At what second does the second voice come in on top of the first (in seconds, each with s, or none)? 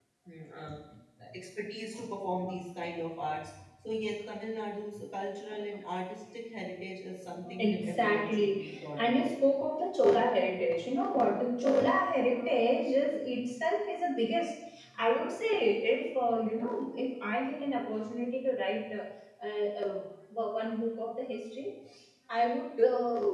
7.4 s